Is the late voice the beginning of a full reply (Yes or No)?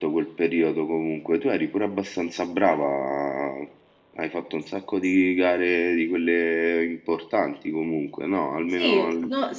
Yes